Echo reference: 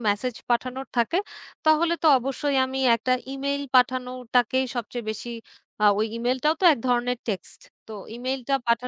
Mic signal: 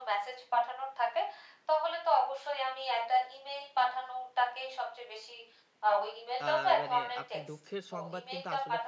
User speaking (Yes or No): Yes